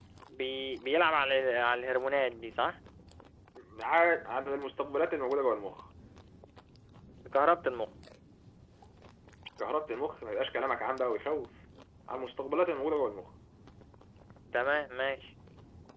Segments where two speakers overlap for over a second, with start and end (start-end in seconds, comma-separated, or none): none